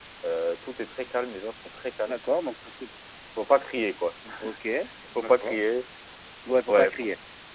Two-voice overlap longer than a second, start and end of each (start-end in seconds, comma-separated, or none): none